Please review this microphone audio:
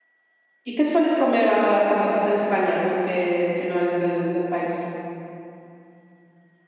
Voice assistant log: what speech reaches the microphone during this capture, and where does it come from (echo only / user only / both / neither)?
user only